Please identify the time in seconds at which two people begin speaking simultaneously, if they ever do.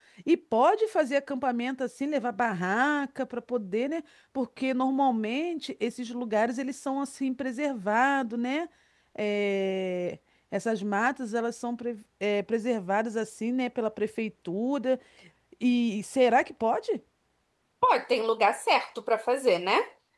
none

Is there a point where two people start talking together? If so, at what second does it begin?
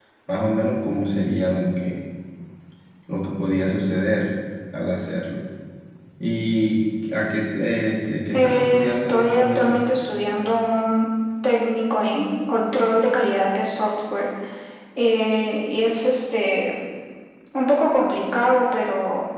8.3 s

